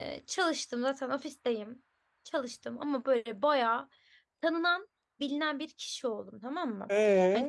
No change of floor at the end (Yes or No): Yes